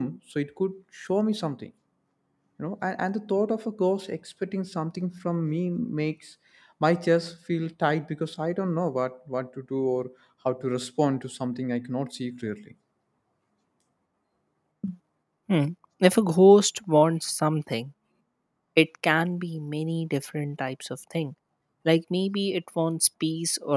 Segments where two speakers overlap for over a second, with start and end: none

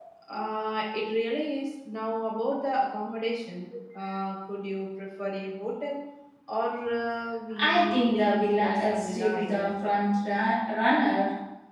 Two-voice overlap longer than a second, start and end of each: 7.6-9.7

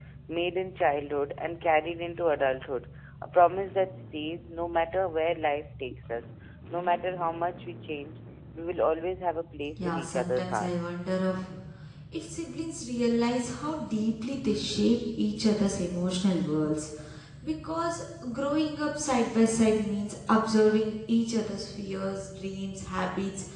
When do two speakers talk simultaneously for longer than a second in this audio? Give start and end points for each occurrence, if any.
9.8-11.0

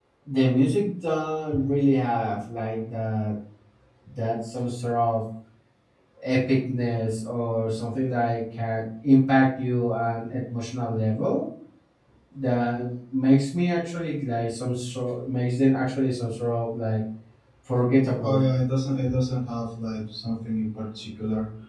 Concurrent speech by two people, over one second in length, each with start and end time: none

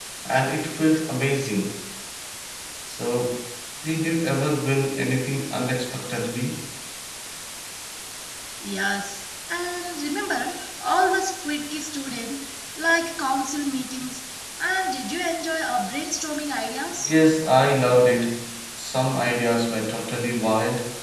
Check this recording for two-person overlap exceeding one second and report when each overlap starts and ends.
none

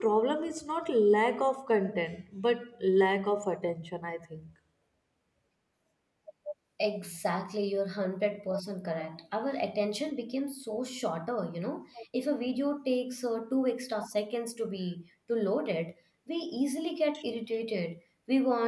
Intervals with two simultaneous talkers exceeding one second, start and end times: none

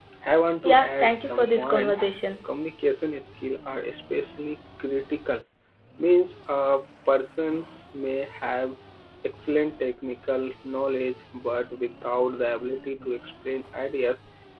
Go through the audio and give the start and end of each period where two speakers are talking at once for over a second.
0.6-2.0

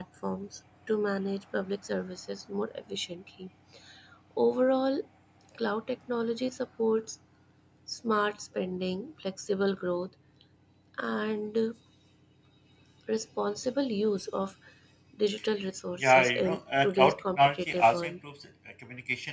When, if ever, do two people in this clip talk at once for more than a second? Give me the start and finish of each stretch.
16.0-18.2

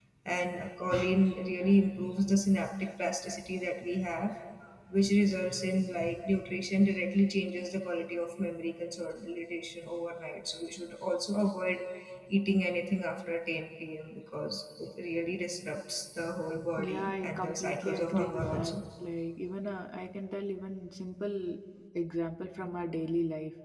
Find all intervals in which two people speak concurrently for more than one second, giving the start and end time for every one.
16.8-18.7

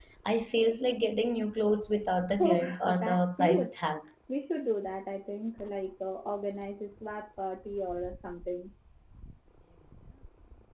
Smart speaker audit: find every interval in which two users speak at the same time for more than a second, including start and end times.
2.4-3.8

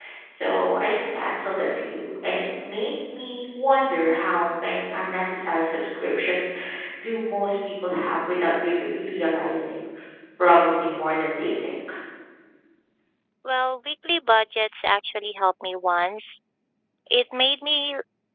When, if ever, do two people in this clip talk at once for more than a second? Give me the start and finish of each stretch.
none

